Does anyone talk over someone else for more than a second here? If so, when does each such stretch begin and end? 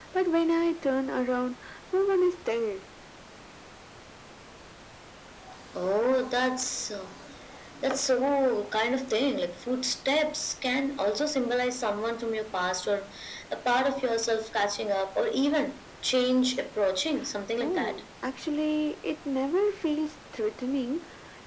none

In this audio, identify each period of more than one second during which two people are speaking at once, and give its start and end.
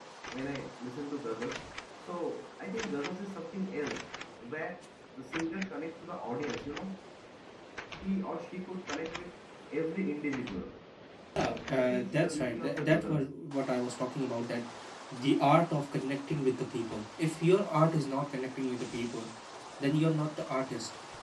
11.4-13.3

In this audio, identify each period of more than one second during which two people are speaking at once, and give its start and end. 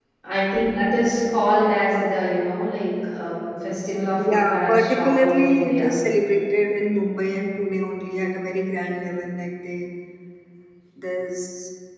4.2-5.9

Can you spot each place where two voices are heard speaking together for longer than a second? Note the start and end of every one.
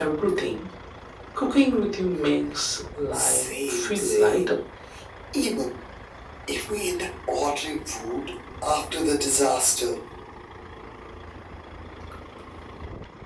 3.1-4.6

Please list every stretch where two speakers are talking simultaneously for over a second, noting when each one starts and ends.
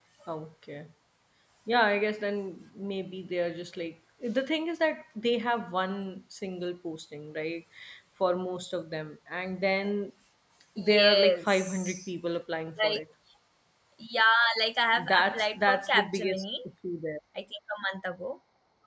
10.8-12.0, 14.9-16.4

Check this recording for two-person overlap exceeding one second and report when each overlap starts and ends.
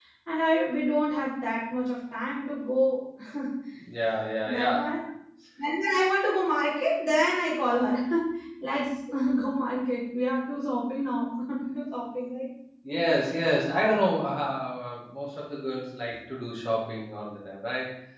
none

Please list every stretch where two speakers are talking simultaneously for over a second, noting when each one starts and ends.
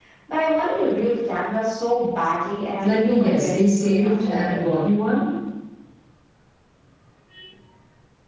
2.8-4.6

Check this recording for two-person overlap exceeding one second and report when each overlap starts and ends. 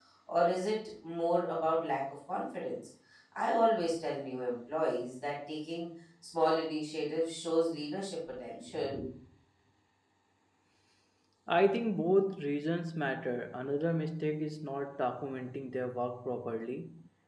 none

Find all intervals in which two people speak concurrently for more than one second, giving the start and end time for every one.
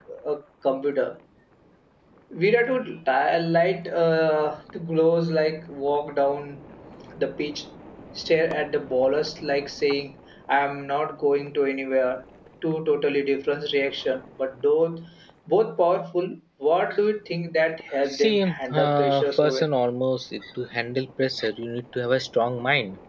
18.1-19.7

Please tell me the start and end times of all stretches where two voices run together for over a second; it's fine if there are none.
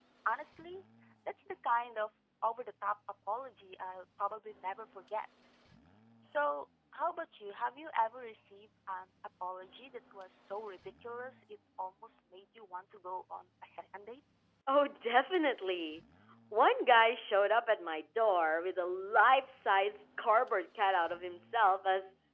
none

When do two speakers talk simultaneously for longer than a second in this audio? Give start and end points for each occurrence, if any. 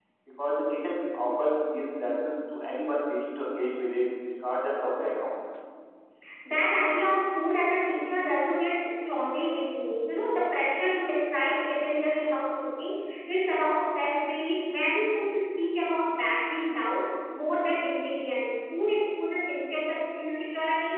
none

